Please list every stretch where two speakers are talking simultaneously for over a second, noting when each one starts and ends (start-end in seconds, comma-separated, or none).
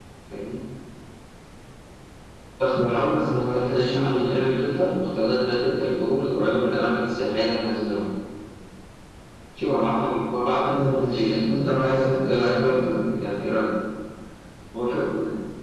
2.8-4.2, 10.7-12.8